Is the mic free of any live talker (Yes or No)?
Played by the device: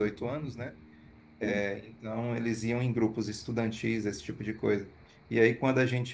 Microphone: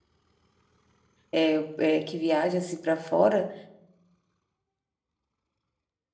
No